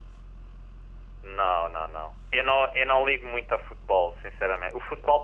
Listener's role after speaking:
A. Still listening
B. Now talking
A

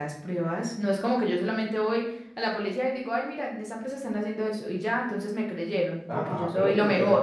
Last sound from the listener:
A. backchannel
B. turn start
B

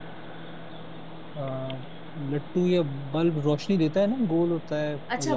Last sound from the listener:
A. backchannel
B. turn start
B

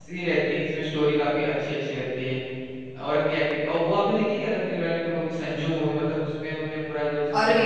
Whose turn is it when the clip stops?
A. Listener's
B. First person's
A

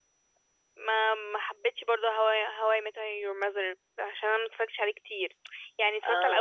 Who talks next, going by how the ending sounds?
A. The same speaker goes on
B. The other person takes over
A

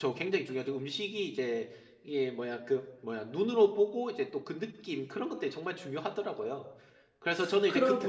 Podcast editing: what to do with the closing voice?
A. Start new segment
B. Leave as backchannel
B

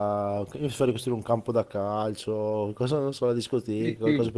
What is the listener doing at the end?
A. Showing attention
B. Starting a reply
B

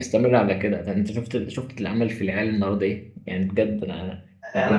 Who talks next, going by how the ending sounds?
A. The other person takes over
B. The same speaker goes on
A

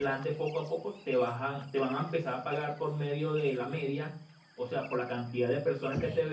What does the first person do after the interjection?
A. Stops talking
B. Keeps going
B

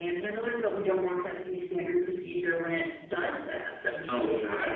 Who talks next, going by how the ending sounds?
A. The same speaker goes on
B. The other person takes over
B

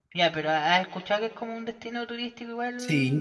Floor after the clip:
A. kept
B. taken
B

